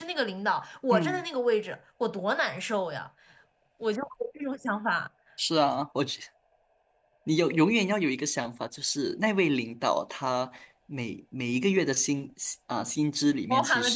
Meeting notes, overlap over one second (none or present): none